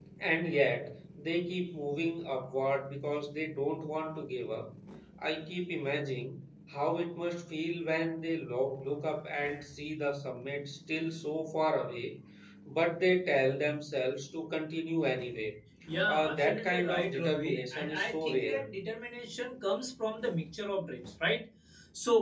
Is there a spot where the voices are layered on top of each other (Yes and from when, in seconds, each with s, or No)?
Yes, from 16.1 s